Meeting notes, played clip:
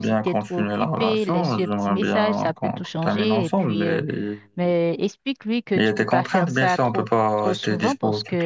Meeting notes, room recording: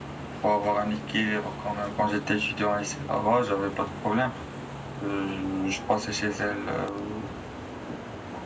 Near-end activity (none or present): present